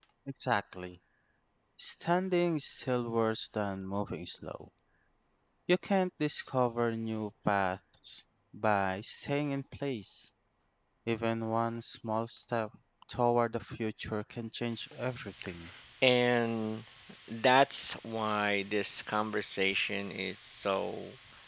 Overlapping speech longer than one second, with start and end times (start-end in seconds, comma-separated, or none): none